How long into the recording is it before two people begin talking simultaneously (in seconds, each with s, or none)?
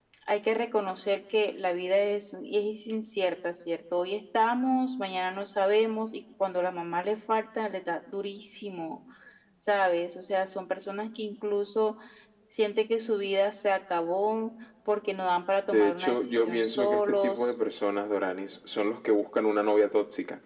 15.7 s